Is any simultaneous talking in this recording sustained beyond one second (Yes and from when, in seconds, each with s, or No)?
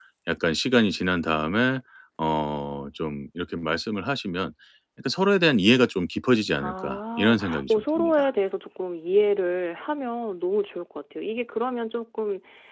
Yes, from 6.6 s